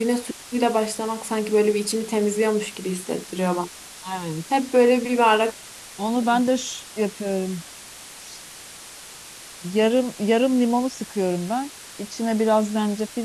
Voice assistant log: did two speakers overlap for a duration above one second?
No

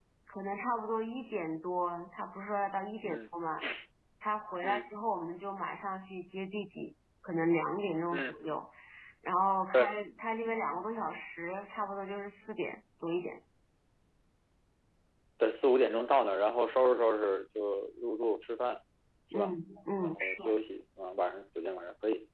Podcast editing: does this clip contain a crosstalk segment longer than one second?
No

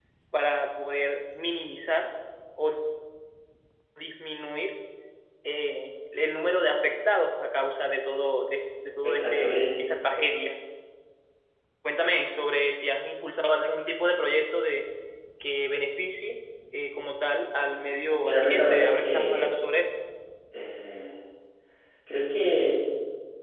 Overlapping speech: Yes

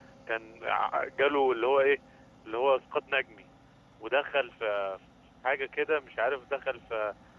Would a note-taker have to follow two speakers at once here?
No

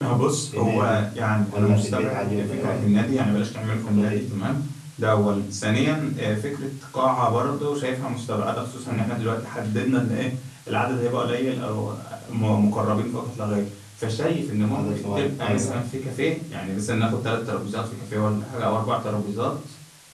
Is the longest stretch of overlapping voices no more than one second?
No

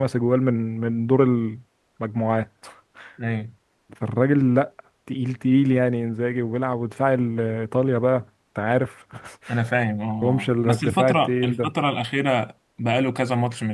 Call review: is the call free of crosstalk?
No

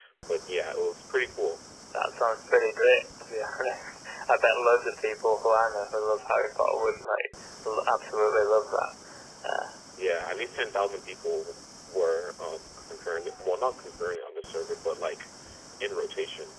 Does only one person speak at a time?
Yes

